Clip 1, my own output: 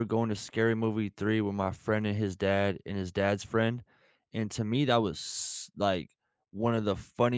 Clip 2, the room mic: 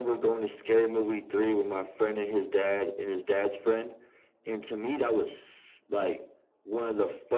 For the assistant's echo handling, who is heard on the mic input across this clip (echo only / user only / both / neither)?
echo only